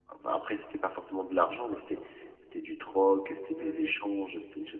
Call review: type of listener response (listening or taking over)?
listening